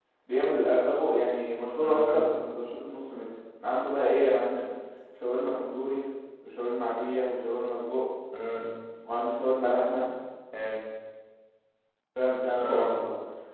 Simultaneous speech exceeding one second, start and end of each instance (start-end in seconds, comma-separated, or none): none